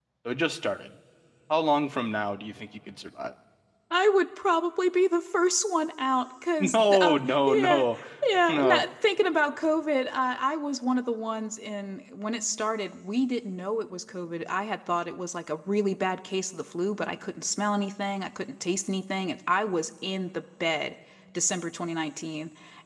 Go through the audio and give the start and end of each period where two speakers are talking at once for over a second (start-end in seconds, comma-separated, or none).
6.6-7.8